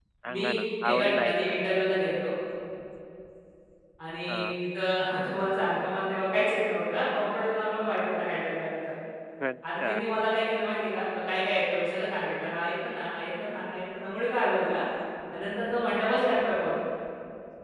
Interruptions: present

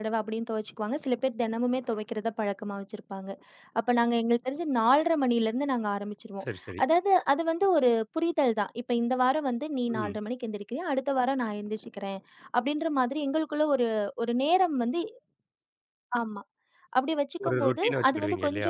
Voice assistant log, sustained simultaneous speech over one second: present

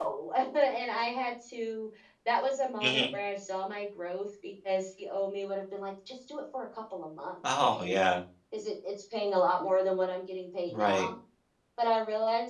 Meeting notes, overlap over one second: none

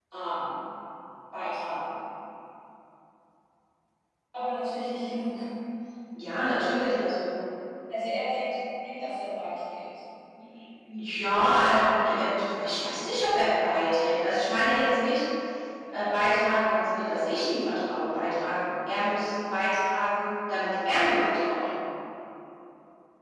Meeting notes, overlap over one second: none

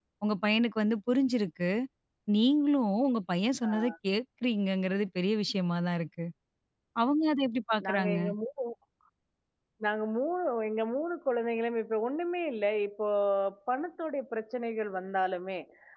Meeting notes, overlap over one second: none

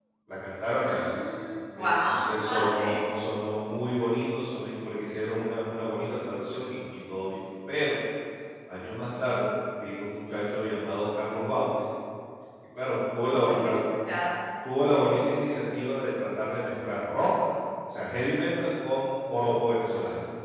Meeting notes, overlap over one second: present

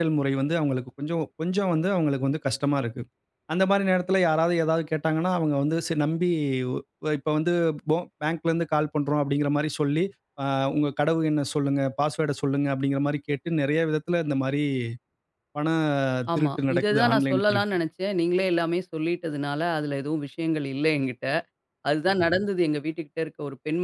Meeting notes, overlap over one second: present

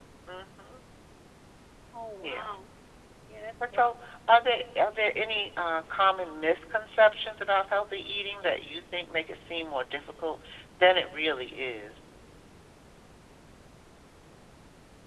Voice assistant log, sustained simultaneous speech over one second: none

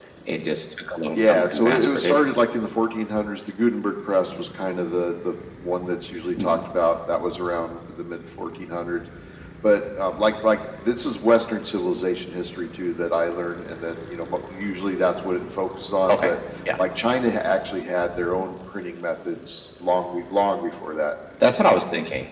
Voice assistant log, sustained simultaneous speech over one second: present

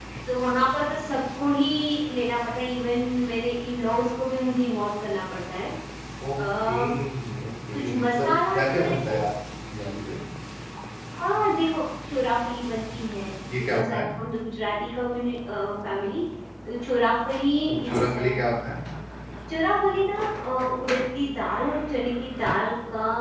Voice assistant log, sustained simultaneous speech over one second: present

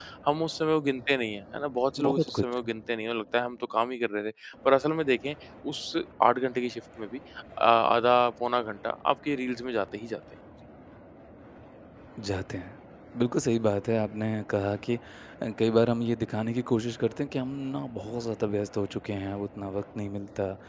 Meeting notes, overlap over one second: none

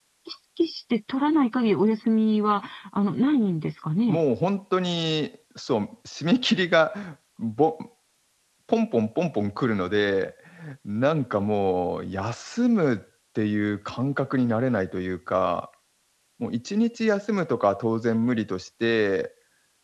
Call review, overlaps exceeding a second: none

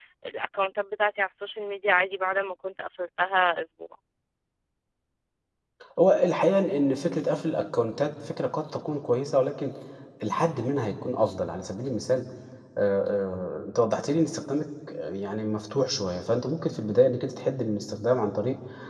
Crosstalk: none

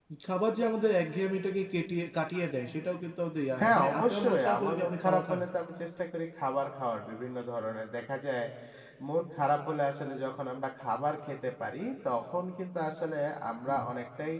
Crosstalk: present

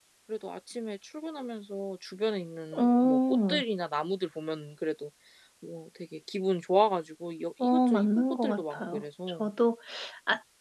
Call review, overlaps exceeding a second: present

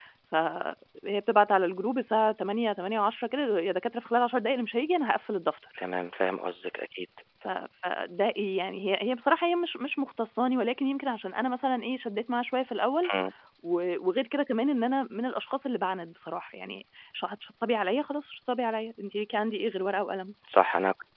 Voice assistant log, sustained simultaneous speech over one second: none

